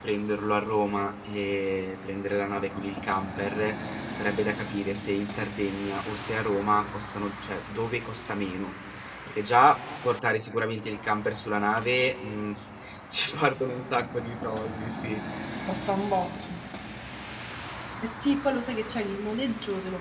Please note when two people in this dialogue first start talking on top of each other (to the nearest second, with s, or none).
none